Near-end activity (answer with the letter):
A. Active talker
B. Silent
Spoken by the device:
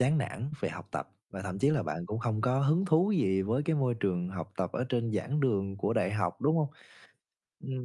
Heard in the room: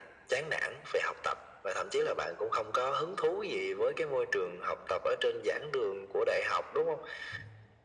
B